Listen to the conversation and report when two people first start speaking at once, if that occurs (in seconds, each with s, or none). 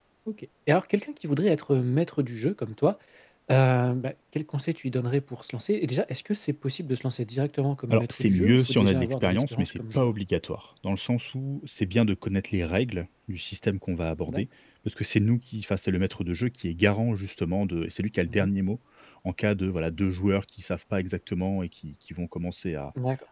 7.9 s